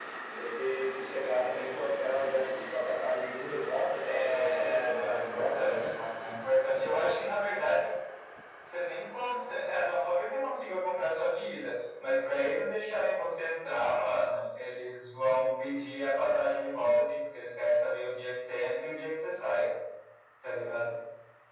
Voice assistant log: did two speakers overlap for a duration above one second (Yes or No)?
Yes